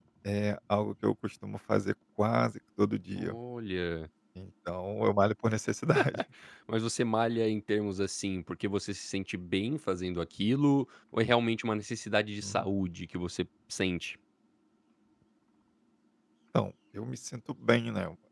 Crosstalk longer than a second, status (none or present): none